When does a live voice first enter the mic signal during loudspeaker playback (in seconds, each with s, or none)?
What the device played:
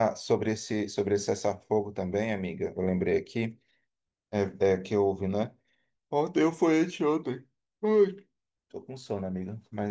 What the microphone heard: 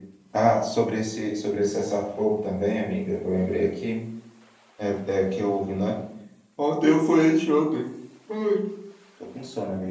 none